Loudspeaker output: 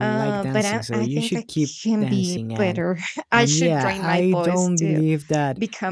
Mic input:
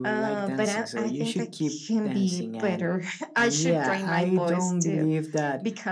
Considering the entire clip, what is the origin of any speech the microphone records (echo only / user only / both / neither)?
echo only